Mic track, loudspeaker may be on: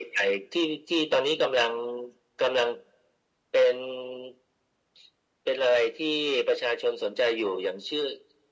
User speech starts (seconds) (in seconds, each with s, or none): none